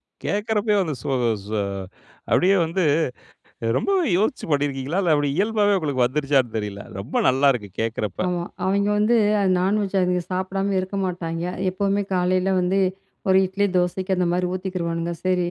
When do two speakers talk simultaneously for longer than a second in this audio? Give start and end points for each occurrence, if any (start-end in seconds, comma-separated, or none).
none